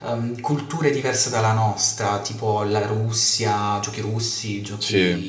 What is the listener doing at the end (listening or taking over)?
listening